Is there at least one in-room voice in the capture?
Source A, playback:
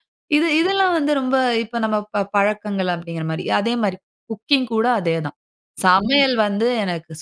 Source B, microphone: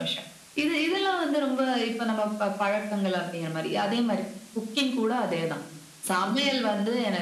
No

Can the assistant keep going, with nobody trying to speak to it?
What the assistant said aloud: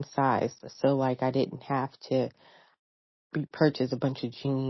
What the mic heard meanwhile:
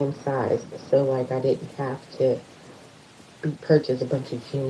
Yes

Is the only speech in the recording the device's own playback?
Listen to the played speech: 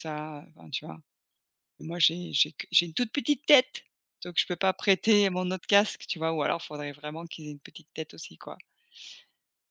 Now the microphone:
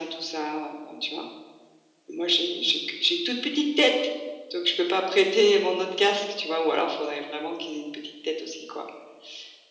Yes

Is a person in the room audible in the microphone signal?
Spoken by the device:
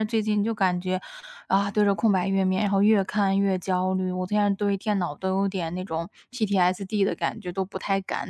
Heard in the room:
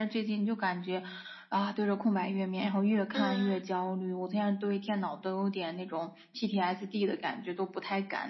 Yes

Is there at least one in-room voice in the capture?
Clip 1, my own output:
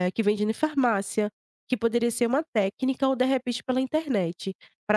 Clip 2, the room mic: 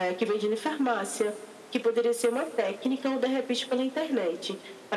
No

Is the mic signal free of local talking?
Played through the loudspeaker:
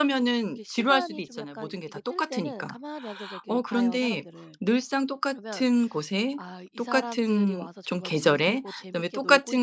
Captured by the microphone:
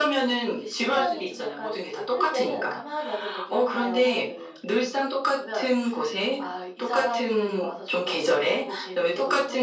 Yes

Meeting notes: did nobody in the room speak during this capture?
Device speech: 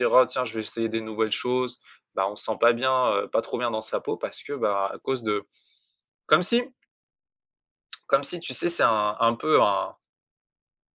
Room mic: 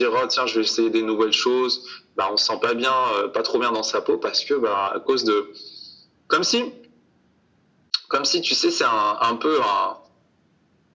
Yes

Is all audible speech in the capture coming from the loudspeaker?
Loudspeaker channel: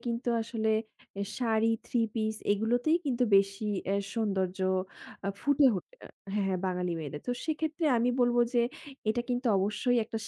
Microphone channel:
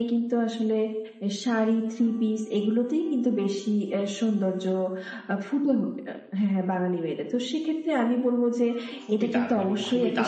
No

